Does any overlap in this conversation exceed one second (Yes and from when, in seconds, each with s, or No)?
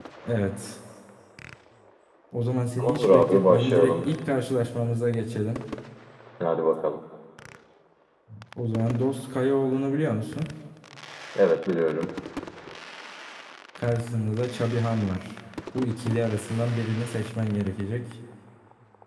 Yes, from 2.8 s